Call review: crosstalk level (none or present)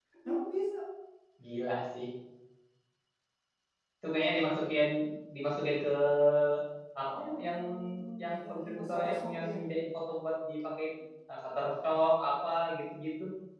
present